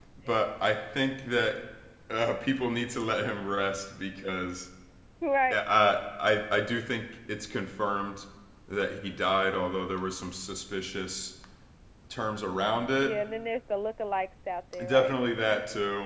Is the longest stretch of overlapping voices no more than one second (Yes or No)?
Yes